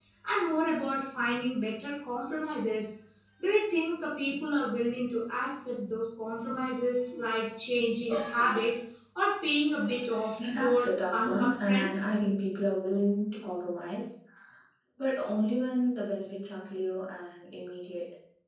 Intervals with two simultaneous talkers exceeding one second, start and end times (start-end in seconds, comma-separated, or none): 10.4-12.2